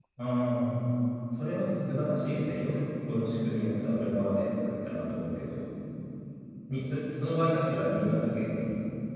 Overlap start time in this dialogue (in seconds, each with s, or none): none